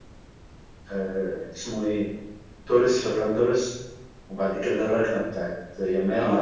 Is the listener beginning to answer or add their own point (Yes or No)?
Yes